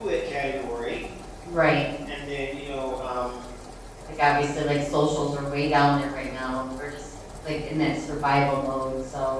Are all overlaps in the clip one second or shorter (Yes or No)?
Yes